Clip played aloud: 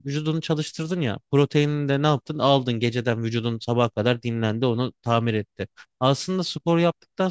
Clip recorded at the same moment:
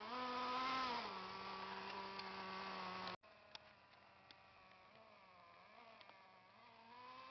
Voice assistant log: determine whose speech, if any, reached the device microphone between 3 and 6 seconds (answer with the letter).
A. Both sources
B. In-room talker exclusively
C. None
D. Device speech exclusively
C